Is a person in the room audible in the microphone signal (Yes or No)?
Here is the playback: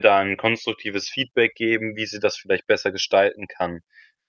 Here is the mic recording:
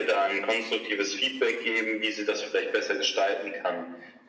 No